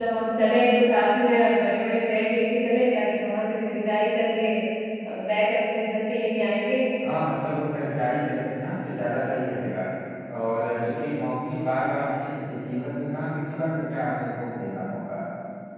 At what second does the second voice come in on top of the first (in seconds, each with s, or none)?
none